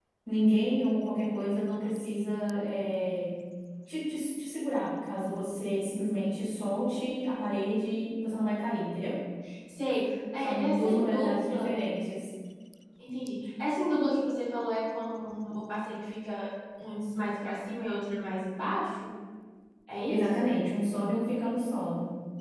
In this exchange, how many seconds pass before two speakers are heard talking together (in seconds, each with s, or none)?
10.4 s